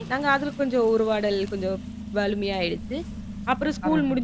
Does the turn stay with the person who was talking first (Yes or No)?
Yes